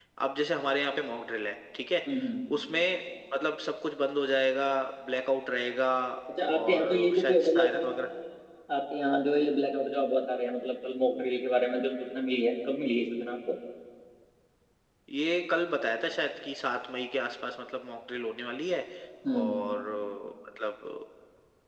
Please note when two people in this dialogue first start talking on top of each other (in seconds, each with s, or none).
6.5 s